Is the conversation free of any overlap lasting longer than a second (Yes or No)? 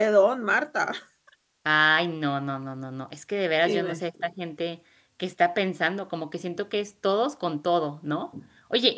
Yes